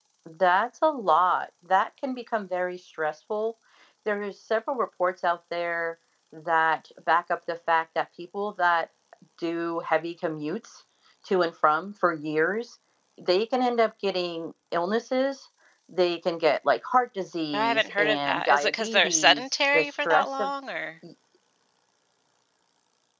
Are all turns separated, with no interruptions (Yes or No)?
No